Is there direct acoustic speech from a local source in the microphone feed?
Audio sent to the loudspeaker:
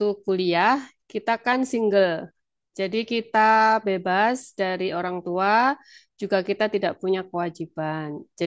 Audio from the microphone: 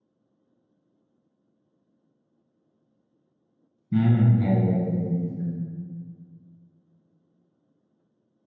Yes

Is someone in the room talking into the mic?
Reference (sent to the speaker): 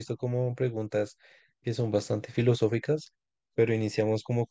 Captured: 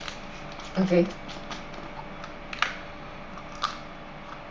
Yes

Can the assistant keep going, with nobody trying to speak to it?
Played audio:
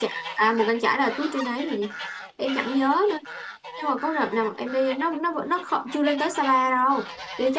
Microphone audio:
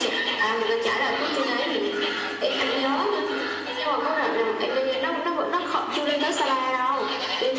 Yes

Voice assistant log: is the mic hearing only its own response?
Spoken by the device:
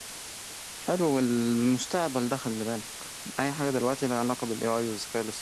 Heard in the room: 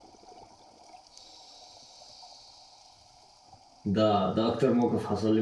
No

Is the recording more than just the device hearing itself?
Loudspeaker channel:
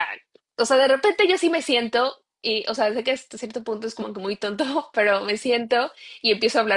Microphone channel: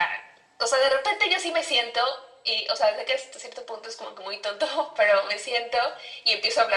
No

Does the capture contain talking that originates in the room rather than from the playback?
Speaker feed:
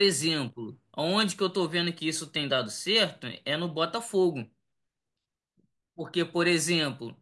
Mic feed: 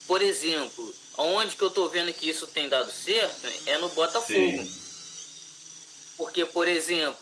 Yes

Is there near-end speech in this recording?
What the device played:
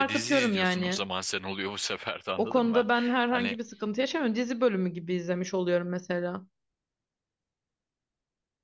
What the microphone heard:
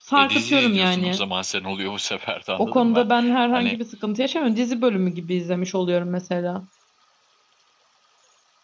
No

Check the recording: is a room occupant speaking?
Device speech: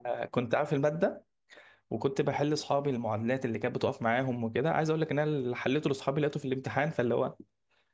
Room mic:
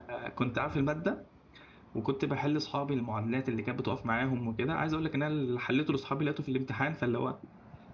No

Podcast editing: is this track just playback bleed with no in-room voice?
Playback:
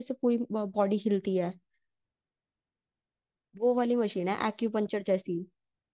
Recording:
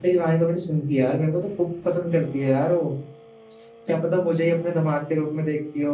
No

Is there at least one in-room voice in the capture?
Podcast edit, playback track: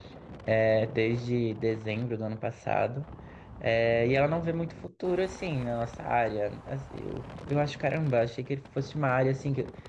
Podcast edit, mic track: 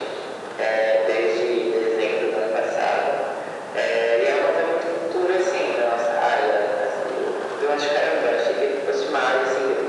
No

